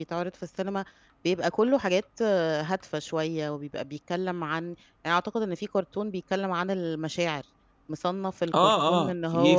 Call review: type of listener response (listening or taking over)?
taking over